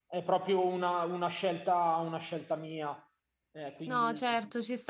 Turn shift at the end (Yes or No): Yes